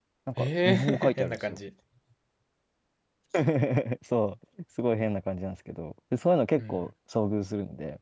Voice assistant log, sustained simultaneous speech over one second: present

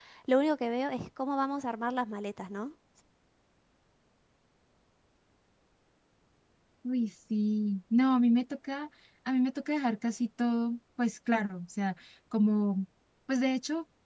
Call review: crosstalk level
none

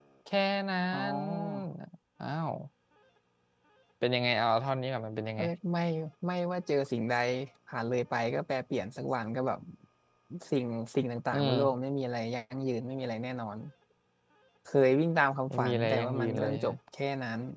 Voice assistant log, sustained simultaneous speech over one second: present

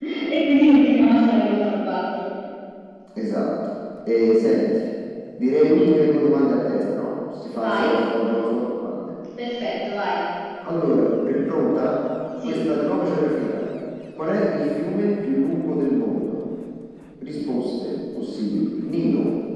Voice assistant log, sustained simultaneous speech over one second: none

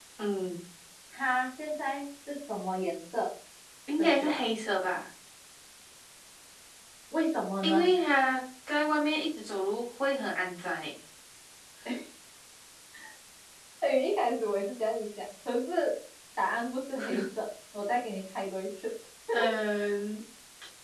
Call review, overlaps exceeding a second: none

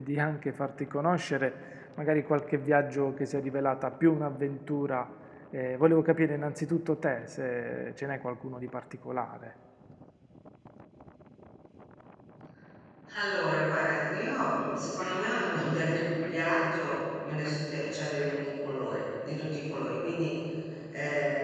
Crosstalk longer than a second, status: none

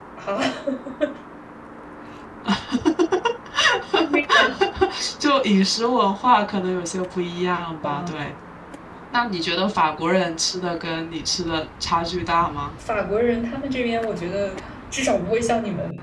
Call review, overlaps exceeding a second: none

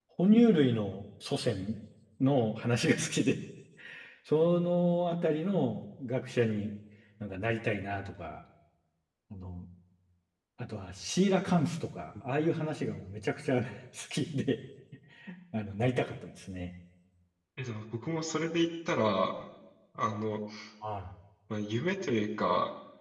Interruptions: none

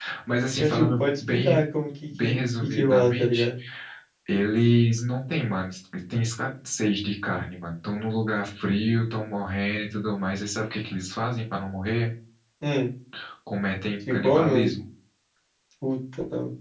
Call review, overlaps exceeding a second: present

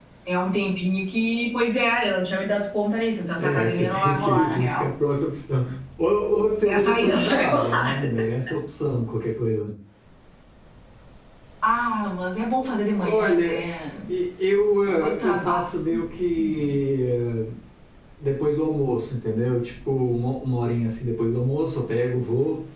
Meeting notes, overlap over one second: present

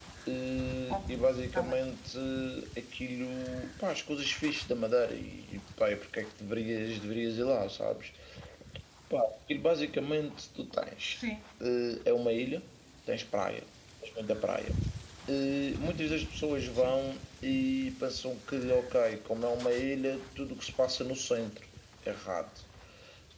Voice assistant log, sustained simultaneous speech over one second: none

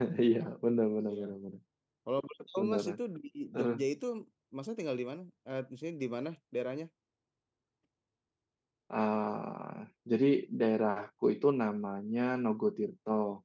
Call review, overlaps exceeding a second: none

